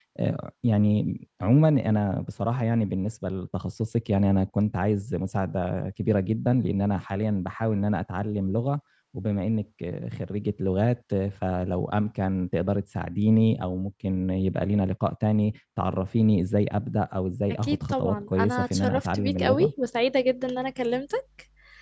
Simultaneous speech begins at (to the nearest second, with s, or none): 18 s